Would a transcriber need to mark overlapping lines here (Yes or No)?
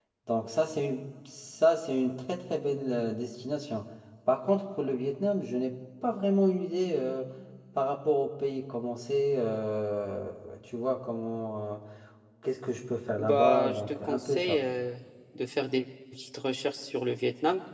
Yes